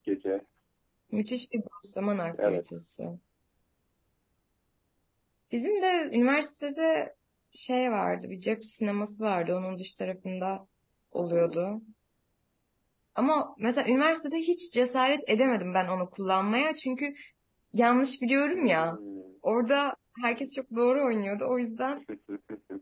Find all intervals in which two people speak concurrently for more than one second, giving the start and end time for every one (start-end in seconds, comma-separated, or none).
none